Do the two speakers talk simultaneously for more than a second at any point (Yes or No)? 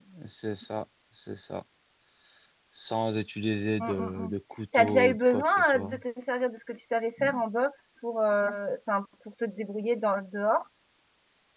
Yes